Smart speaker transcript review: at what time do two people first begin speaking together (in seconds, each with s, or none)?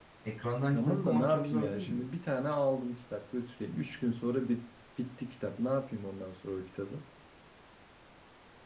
0.7 s